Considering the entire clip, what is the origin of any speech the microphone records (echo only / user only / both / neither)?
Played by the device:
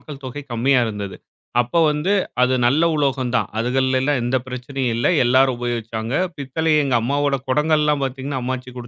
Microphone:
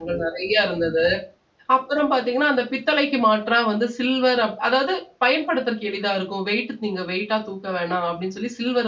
user only